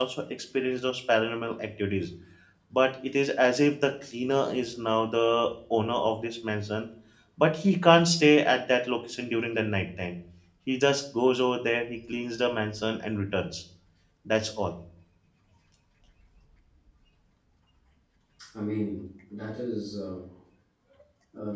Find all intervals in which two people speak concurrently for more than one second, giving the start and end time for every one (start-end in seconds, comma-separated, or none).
none